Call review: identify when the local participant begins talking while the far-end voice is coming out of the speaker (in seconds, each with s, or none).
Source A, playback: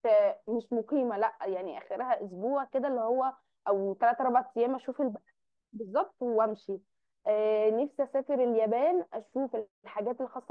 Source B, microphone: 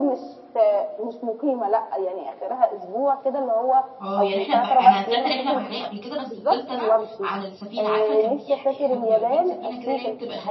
4.0 s